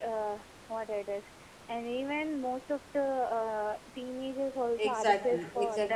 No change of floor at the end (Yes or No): No